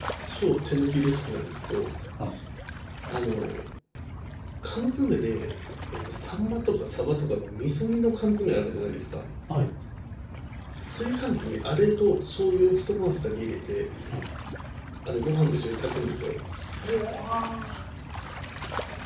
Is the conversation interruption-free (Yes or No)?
Yes